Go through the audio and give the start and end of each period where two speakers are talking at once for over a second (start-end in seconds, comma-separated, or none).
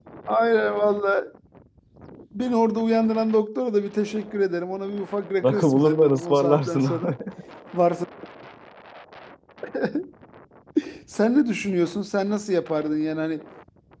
5.4-7.1